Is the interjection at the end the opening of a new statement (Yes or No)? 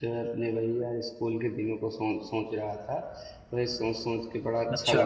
No